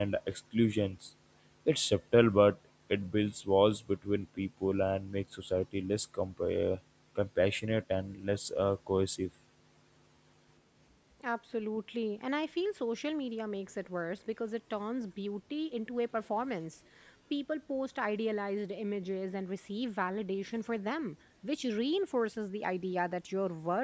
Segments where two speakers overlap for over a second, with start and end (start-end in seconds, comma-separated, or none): none